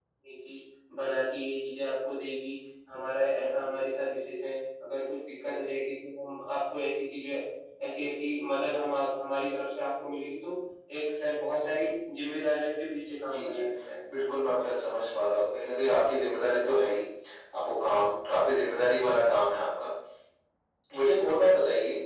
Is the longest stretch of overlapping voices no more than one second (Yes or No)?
Yes